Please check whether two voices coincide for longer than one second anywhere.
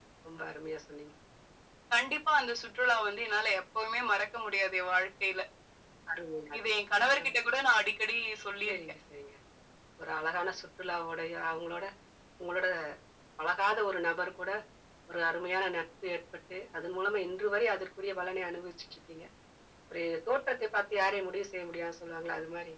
No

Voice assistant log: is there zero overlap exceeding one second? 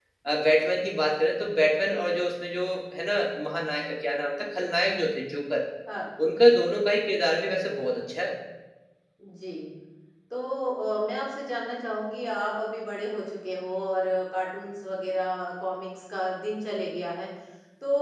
Yes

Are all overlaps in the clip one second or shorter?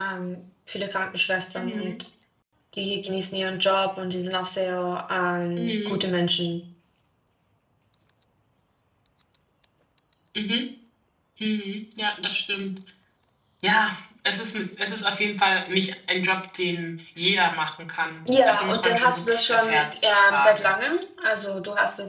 No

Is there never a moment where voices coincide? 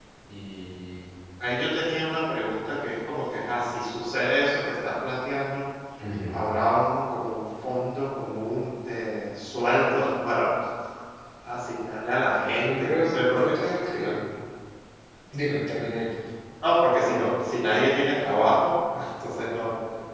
No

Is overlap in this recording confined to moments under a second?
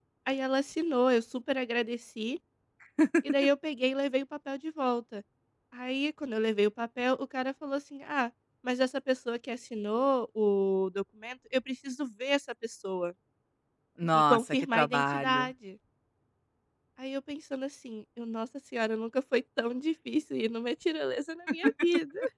No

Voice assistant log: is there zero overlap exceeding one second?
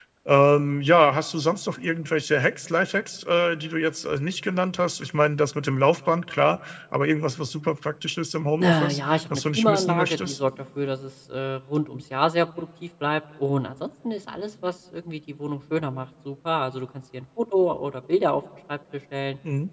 No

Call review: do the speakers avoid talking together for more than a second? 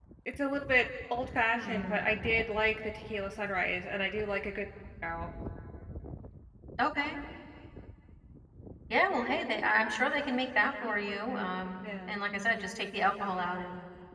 Yes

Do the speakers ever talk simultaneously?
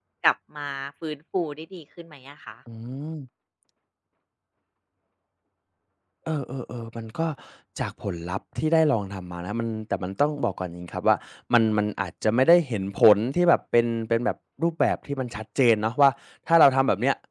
No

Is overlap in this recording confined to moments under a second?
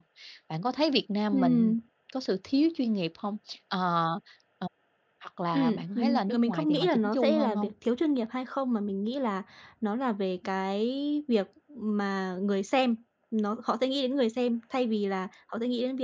No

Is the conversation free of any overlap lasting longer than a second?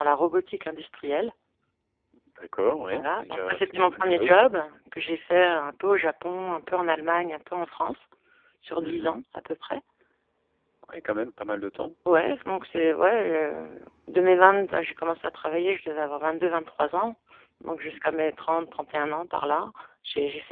No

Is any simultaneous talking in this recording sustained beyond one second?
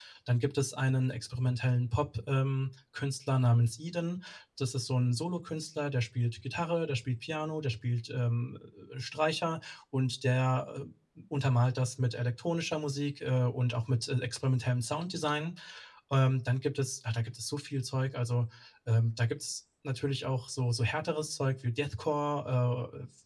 No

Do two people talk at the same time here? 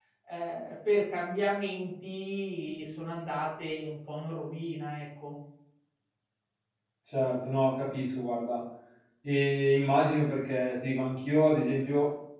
No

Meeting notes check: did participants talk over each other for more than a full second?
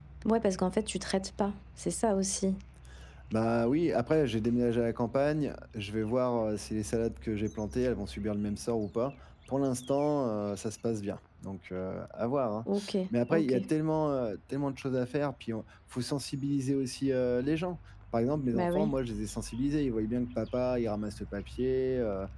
No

